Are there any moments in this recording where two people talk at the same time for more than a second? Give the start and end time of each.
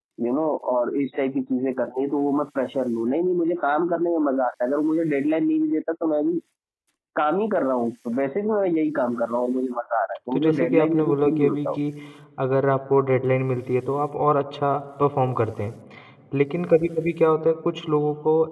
10.3-11.8

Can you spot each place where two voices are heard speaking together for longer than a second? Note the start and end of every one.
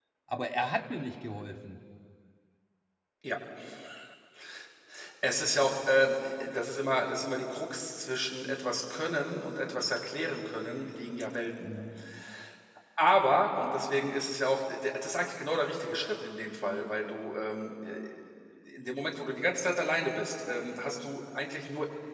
none

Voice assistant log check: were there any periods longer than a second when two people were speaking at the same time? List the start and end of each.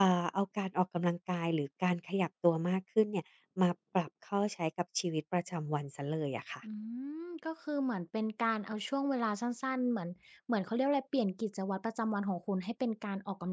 none

